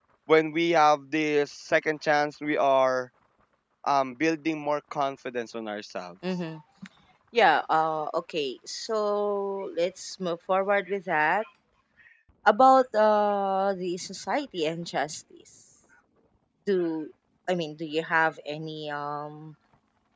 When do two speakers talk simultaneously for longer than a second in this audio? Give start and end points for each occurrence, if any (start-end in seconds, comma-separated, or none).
none